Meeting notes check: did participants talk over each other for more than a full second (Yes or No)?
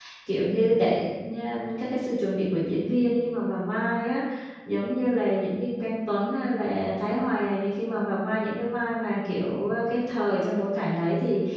No